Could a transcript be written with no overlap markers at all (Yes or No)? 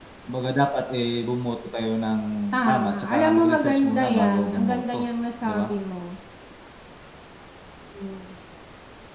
No